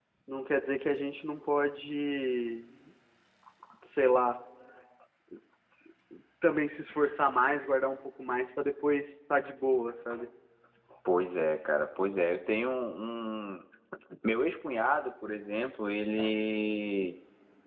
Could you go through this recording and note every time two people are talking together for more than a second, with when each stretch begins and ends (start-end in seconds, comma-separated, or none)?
none